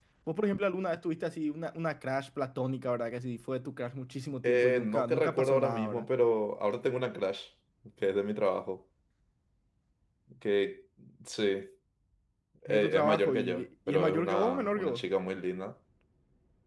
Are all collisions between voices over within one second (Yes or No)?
No